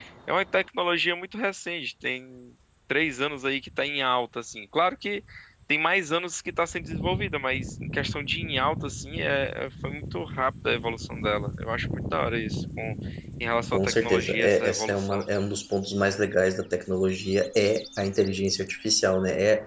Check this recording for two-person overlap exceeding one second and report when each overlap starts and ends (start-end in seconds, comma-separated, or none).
13.7-15.2